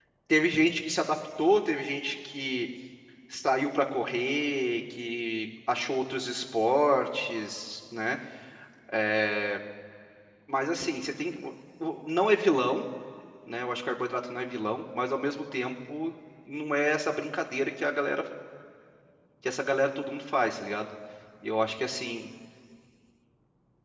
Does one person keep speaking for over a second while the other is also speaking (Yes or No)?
No